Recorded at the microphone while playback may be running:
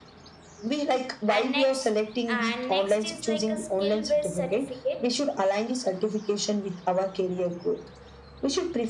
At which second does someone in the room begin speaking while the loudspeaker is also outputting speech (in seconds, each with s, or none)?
1.3 s